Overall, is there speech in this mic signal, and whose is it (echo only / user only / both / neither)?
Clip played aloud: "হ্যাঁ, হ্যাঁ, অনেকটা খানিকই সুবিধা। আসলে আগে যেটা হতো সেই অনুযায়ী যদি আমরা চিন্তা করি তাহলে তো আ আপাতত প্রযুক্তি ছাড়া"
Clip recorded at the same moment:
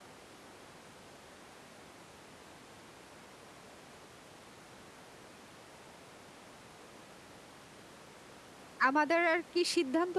user only